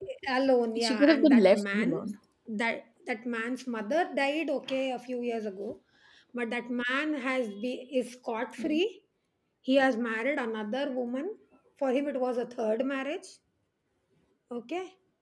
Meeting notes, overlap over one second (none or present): present